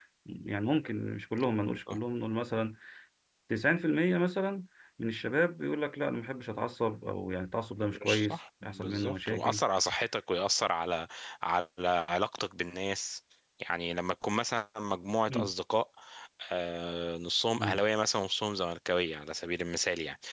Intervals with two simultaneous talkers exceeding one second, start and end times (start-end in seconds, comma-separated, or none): 8.0-9.6